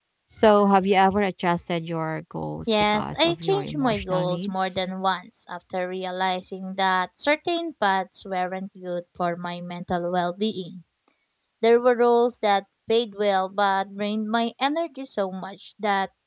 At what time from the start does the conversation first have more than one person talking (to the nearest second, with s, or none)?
3 s